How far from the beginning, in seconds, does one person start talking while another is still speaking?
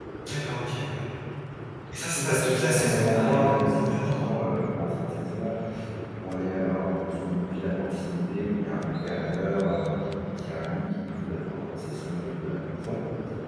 2.1 s

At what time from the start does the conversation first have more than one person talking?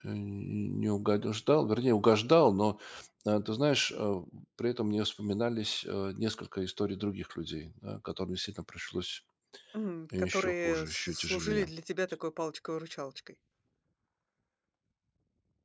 10.2 s

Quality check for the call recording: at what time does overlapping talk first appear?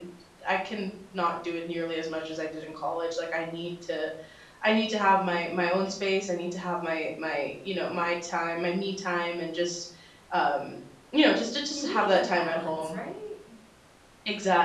11.7 s

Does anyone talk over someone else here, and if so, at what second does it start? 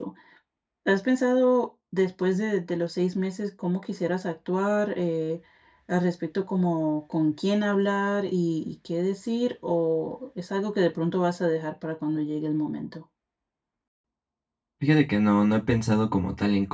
none

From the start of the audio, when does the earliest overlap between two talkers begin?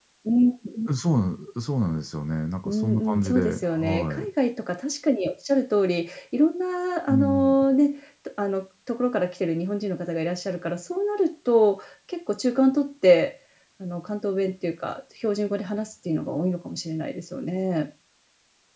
2.6 s

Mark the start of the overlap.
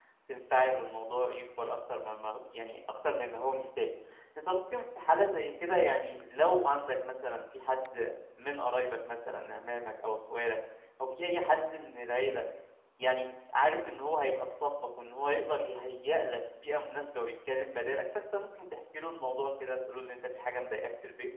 none

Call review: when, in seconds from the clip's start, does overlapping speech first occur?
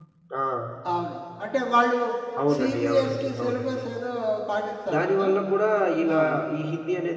2.5 s

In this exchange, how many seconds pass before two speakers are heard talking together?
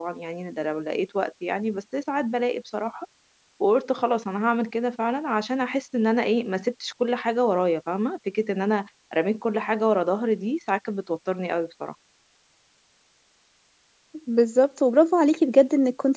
none

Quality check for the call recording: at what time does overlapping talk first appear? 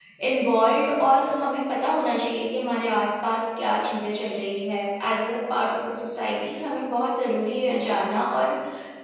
none

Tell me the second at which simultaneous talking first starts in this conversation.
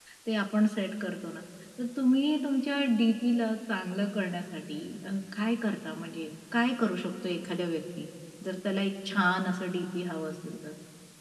none

